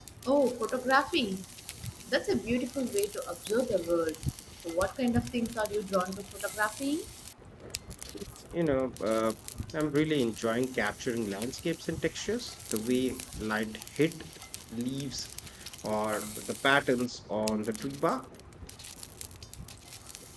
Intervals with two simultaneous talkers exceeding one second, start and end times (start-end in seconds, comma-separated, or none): none